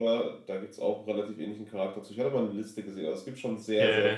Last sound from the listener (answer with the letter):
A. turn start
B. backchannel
A